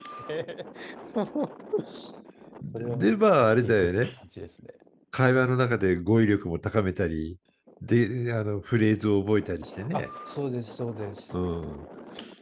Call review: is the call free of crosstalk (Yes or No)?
No